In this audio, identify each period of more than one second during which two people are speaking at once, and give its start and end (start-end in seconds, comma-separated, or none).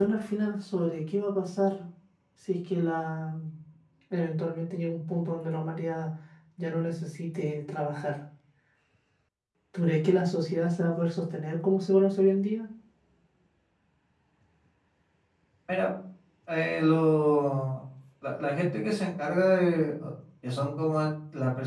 none